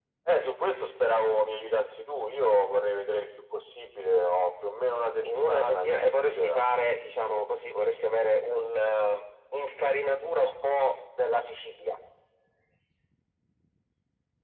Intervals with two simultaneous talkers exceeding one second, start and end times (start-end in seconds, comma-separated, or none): 5.2-6.6